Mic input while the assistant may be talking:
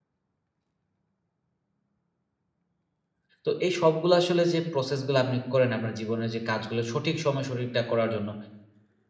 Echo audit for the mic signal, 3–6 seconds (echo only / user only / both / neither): user only